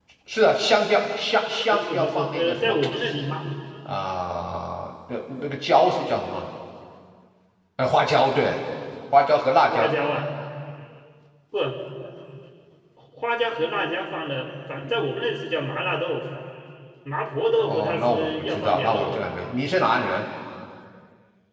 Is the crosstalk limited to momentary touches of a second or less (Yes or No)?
No